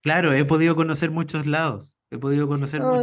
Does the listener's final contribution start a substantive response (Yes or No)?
No